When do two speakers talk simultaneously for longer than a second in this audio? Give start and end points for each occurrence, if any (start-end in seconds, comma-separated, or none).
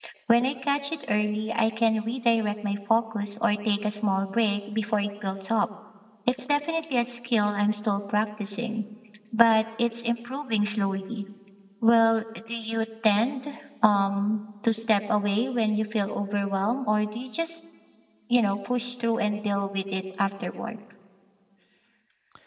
none